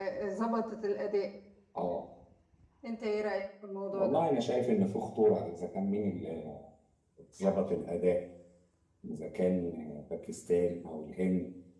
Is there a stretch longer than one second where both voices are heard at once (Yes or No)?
No